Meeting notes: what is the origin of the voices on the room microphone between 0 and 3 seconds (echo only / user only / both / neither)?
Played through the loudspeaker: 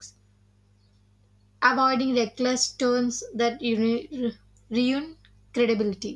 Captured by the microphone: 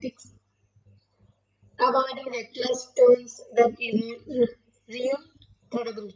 echo only